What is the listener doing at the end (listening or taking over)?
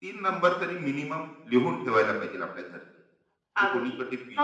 taking over